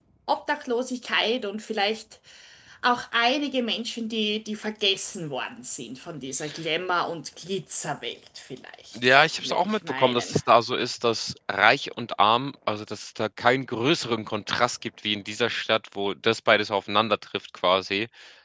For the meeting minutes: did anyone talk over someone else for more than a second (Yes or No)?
Yes